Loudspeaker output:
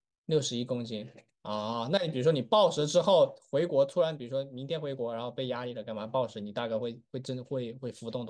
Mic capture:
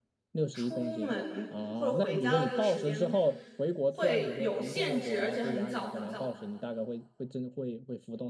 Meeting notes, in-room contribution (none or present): present